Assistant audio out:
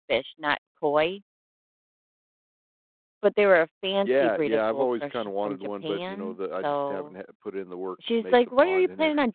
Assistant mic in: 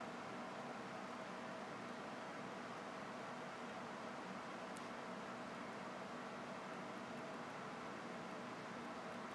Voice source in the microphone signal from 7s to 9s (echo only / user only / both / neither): neither